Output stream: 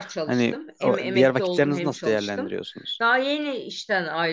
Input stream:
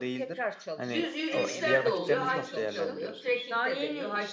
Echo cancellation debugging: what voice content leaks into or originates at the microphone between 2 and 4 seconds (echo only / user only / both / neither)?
both